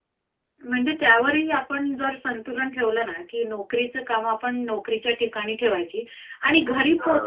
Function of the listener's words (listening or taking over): listening